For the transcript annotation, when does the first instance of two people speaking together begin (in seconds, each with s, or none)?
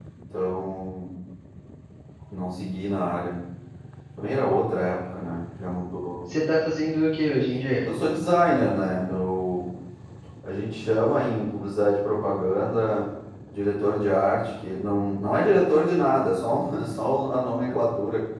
none